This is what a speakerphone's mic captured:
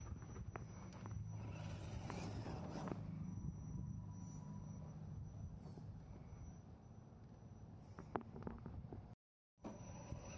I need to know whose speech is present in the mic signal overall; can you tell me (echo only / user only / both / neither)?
neither